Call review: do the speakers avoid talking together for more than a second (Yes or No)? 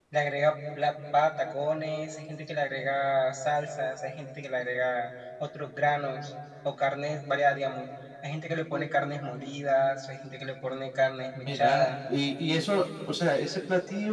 Yes